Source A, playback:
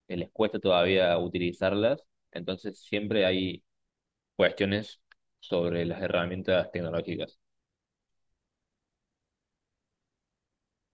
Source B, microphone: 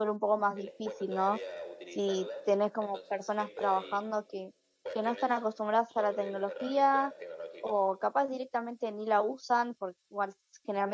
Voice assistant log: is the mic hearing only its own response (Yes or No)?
No